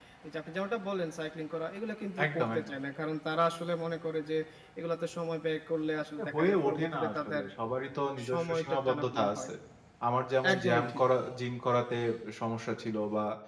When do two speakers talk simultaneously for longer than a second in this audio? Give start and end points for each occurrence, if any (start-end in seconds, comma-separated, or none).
6.2-7.4, 8.3-9.5